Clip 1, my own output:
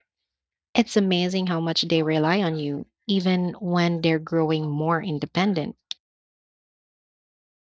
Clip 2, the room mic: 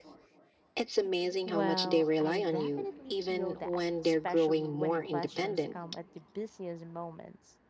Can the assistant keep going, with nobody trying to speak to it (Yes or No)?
No